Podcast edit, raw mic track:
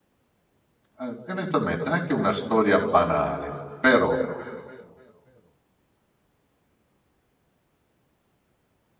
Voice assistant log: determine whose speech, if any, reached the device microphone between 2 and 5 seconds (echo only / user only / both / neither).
user only